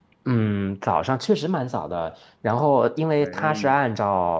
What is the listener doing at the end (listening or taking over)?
listening